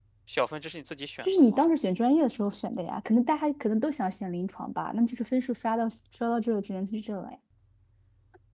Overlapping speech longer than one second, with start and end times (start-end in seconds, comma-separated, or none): none